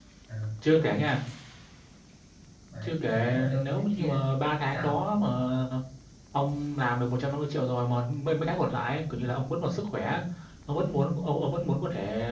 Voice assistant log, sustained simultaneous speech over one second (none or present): present